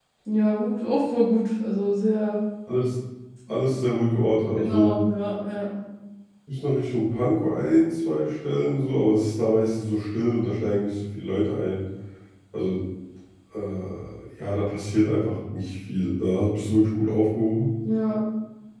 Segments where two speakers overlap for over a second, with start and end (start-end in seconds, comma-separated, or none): none